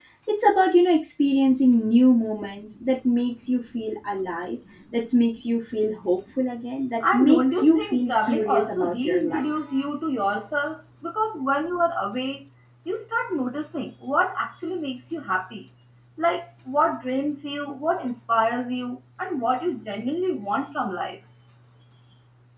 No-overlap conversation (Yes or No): No